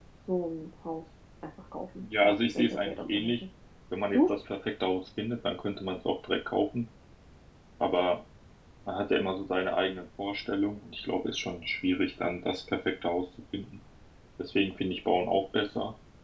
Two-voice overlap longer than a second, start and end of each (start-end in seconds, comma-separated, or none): 2.0-3.3